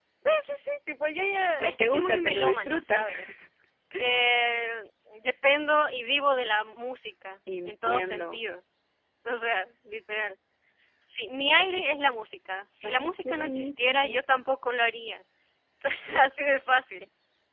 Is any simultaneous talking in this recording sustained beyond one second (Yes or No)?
Yes